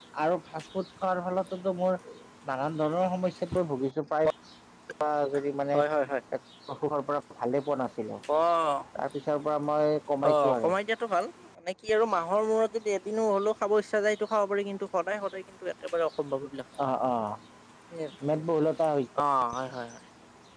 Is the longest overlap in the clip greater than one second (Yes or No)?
No